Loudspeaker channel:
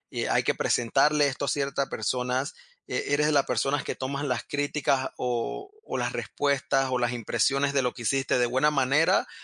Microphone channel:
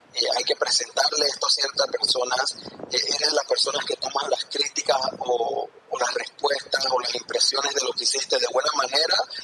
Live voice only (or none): none